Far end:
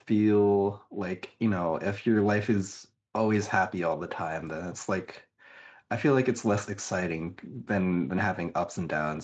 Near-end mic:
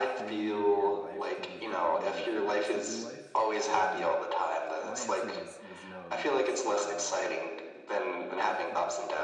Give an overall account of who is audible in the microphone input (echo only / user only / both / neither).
both